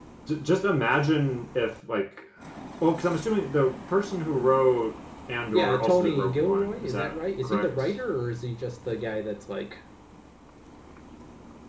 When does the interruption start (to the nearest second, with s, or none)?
6 s